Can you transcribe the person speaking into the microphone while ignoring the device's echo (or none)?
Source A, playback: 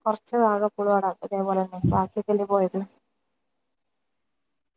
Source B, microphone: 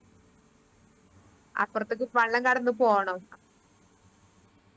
അപ്പുറത്തേക്ക് വെള്ളം കടന്നു പോണം